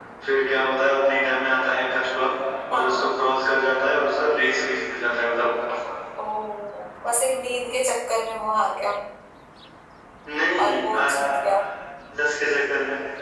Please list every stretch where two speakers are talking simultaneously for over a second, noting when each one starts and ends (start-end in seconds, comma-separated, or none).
none